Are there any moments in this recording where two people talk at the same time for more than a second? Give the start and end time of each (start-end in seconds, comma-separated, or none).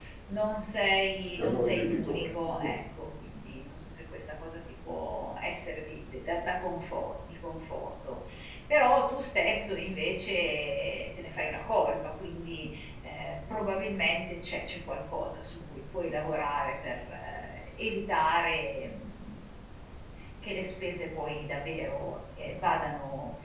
1.3-2.7